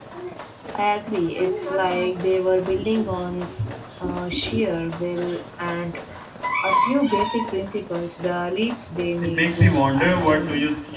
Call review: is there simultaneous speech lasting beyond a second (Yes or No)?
Yes